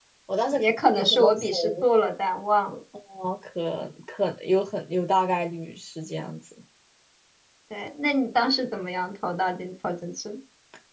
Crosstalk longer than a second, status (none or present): present